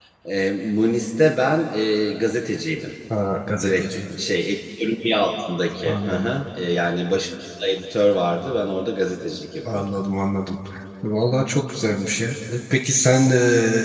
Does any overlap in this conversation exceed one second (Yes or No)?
No